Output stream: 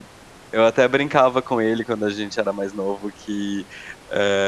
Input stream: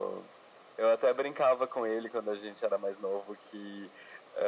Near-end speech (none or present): none